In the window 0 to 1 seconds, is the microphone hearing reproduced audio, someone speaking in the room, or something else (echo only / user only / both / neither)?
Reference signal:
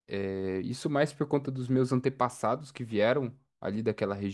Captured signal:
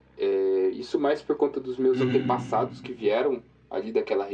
echo only